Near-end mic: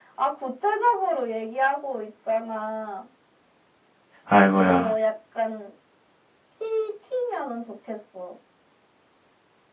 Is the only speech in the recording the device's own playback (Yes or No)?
No